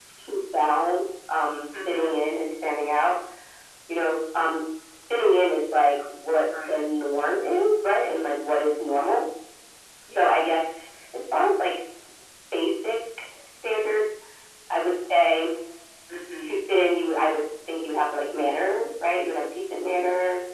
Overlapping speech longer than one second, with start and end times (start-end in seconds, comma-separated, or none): none